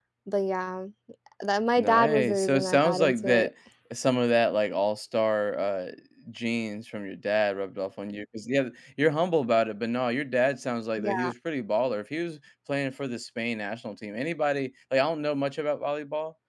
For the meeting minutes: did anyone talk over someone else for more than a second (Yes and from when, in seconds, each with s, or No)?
Yes, from 1.8 s